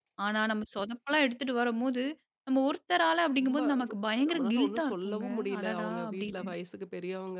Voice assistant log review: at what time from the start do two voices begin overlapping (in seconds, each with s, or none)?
3.4 s